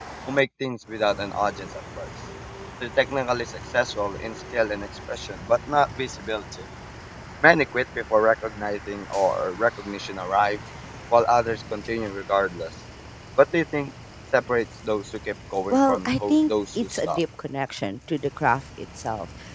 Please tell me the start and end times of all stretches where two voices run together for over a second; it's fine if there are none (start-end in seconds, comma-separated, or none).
15.7-17.2